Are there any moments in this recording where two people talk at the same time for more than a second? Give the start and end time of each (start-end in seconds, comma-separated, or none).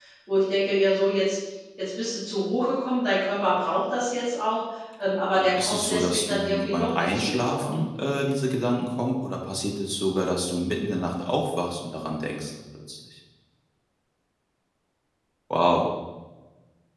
5.3-7.8